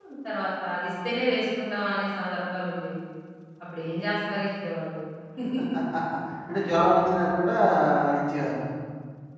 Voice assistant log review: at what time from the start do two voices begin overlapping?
none

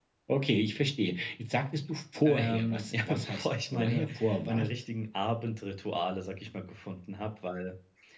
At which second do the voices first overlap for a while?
2.2 s

